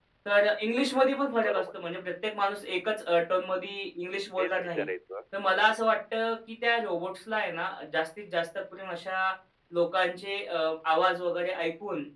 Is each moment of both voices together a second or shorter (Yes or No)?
Yes